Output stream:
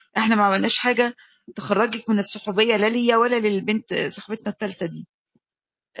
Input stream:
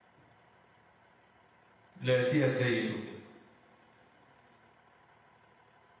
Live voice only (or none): لقيتيها اتضايقت وكده،